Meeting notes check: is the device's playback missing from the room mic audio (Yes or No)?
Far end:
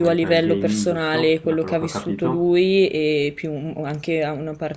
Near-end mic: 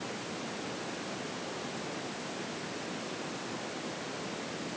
Yes